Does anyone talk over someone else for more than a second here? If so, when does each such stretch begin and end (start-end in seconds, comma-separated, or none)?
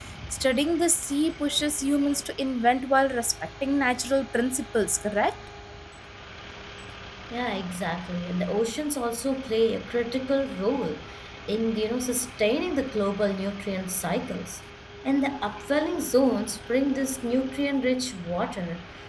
none